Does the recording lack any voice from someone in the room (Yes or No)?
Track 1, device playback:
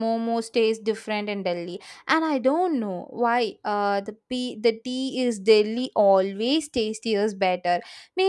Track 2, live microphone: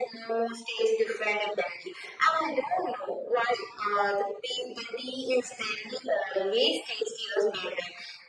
Yes